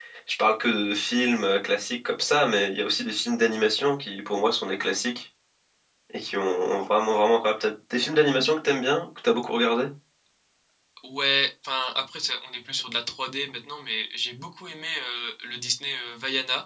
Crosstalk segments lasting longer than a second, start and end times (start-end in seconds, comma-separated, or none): none